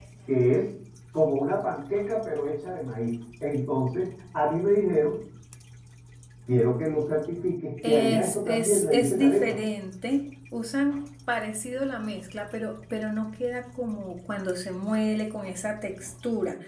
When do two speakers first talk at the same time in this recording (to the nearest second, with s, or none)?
8 s